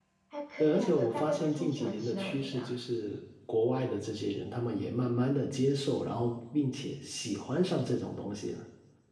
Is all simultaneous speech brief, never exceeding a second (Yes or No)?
No